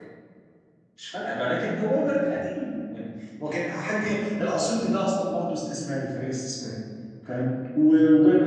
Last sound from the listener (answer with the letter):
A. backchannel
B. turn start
A